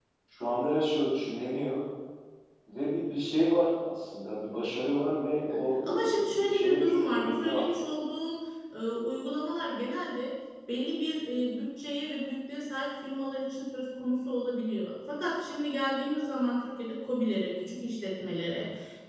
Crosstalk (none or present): present